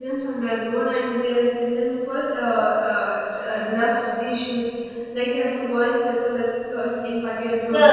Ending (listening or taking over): taking over